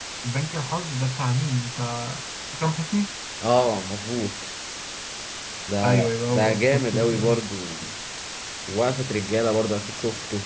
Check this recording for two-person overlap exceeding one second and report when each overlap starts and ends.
5.8-7.4

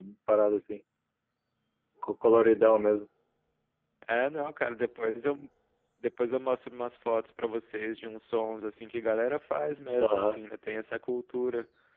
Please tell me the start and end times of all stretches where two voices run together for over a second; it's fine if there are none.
none

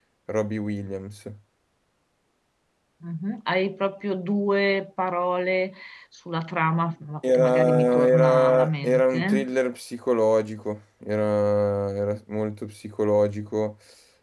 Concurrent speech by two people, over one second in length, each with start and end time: 7.3-9.5

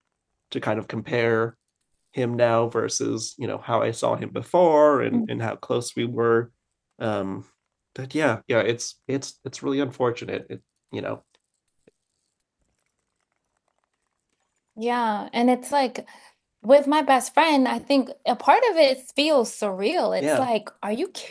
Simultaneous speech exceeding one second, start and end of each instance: none

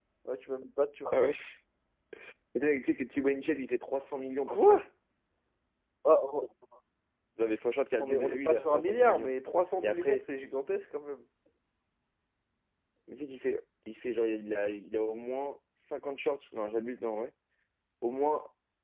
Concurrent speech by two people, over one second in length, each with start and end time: 8.0-9.3

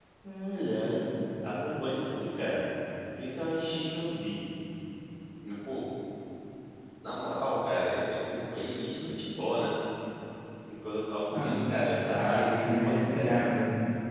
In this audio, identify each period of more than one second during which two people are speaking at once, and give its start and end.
12.2-13.4

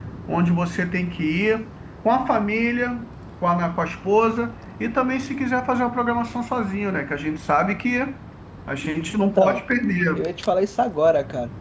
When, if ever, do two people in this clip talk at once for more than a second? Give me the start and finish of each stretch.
none

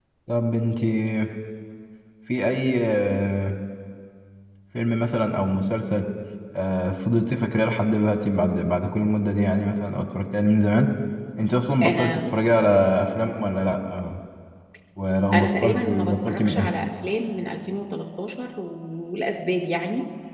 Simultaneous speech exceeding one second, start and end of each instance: 15.3-16.7

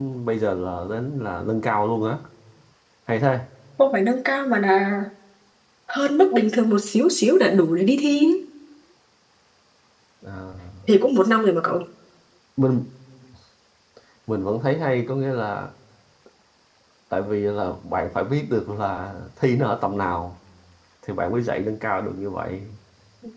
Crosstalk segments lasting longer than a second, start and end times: none

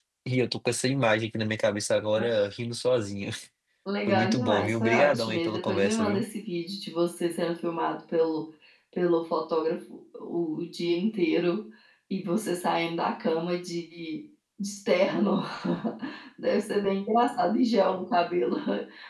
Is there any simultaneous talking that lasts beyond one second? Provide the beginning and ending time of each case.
4.1-6.2

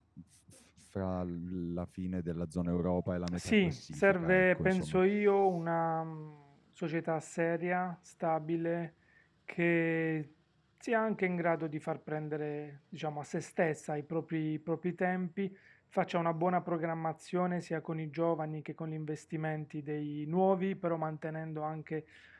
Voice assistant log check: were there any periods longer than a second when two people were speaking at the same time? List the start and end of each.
3.3-5.0

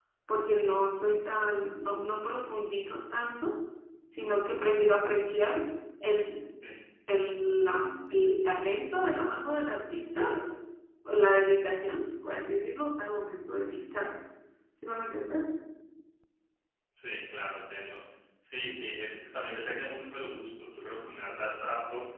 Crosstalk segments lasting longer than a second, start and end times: none

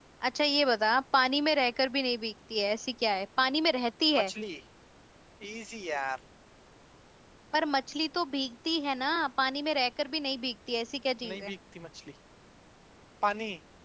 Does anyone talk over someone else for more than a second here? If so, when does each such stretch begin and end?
none

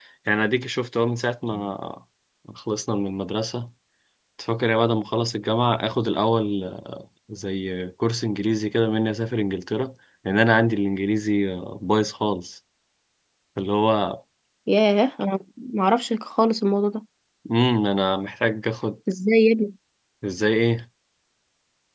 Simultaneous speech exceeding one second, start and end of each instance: none

